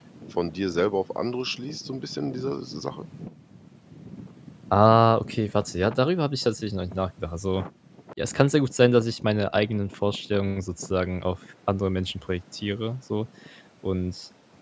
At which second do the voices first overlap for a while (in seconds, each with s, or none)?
none